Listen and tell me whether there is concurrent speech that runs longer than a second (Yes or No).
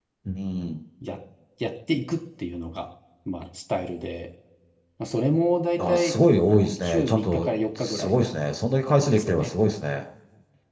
Yes